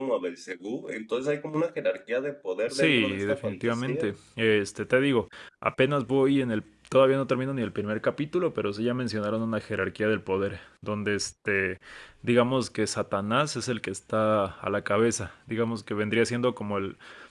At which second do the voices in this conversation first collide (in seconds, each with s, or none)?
2.7 s